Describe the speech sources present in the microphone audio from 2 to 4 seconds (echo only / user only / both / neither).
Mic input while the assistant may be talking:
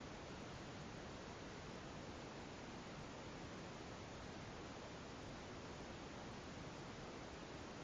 neither